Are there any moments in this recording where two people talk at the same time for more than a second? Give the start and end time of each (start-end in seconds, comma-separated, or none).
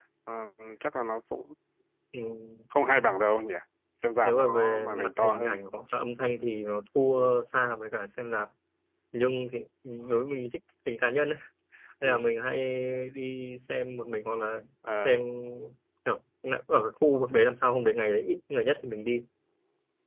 4.2-5.6